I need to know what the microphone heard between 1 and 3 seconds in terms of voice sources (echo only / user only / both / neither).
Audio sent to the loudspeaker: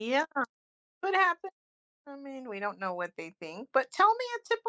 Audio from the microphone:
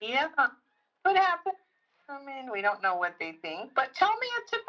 echo only